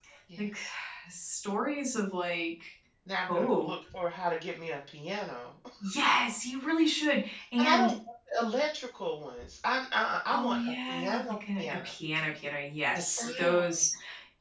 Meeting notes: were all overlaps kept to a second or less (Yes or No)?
No